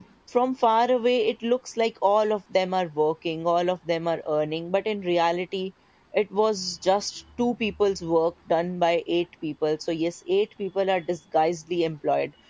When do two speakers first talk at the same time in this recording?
none

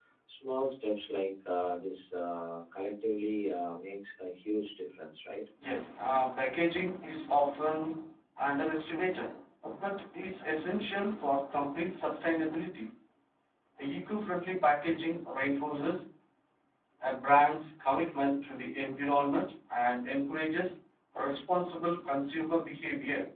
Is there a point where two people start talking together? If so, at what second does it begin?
none

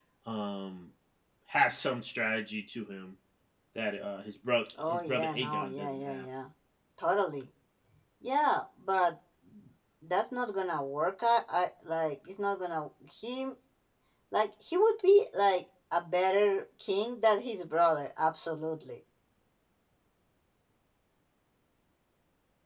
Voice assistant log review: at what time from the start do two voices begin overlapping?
4.8 s

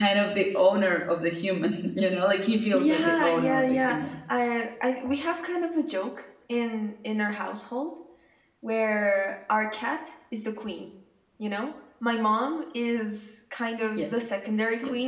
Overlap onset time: 2.7 s

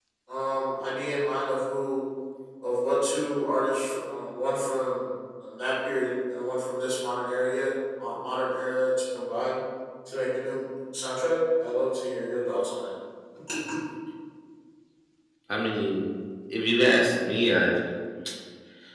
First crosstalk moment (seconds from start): none

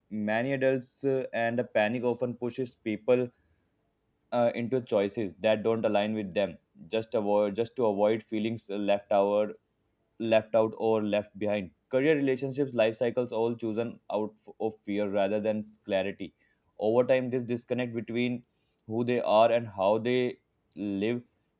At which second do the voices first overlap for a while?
none

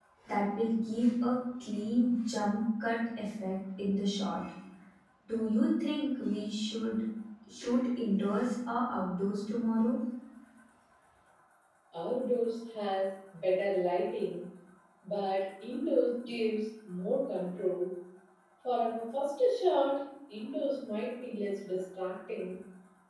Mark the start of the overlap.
none

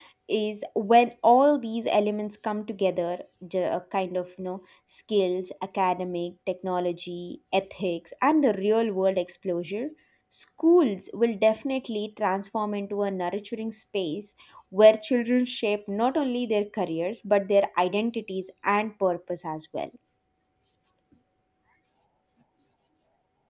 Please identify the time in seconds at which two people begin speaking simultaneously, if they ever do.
none

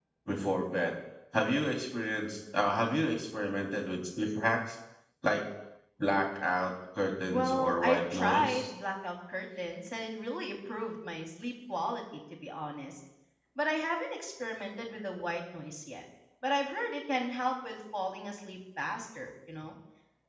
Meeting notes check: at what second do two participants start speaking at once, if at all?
7.3 s

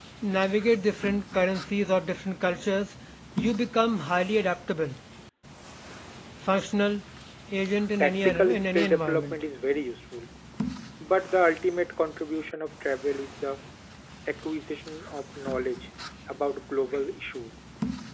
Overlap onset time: 8.0 s

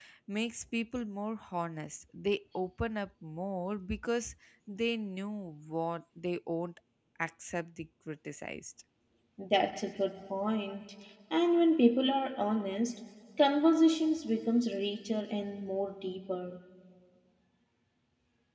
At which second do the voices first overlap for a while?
none

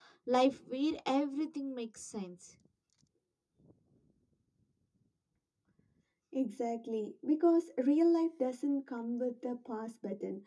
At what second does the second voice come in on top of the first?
none

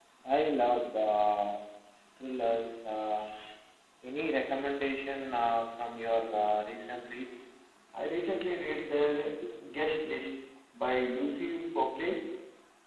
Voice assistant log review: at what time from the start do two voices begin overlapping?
none

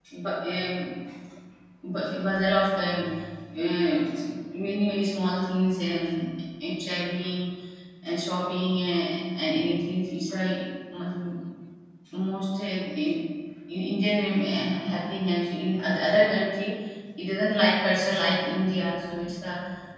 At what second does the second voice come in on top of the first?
none

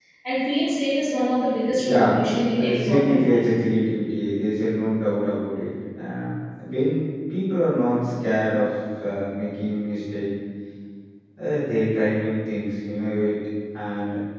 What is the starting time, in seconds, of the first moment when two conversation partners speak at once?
1.7 s

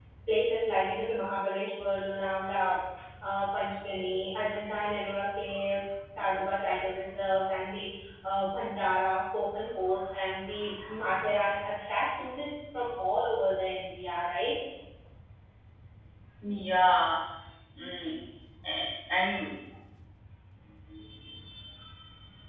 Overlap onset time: none

